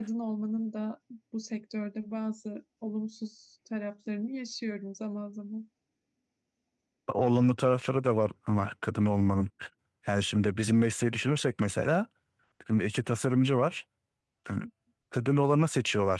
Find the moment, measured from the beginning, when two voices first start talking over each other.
none

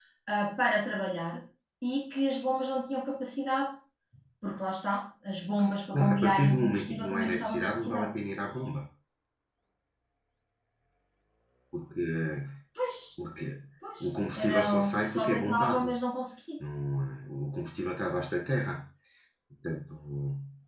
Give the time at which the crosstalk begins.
5.9 s

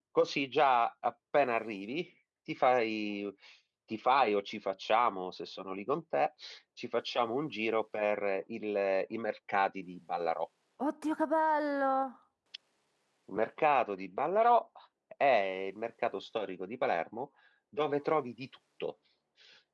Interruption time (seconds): none

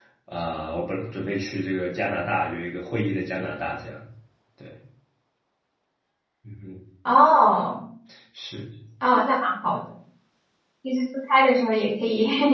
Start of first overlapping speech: none

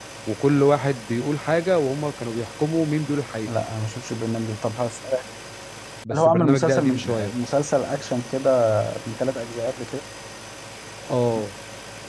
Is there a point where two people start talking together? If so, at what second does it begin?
6.1 s

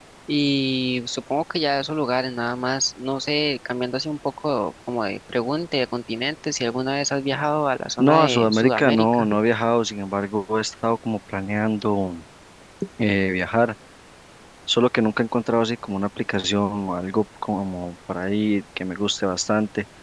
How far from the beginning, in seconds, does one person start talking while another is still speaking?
8.0 s

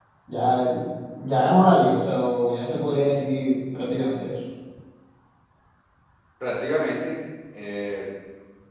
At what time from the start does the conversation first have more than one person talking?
none

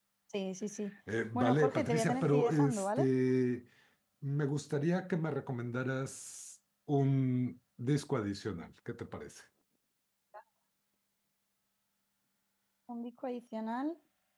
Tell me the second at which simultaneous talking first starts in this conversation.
1.3 s

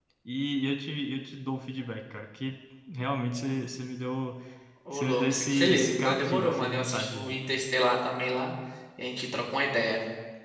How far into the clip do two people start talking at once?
4.9 s

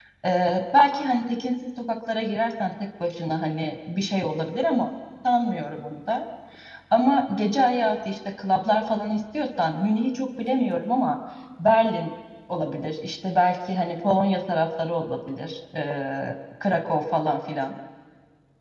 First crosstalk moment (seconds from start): none

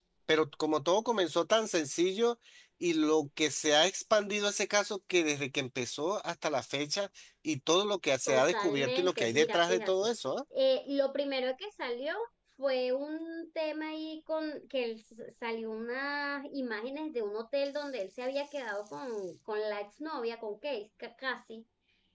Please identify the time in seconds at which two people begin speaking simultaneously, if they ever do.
8.3 s

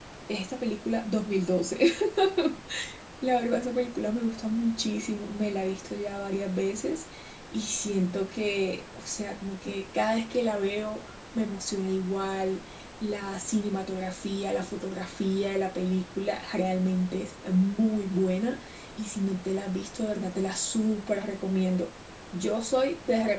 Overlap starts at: none

